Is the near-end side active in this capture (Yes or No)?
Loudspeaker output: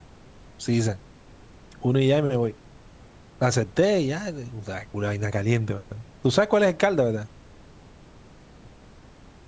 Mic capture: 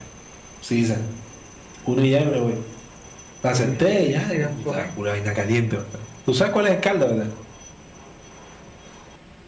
Yes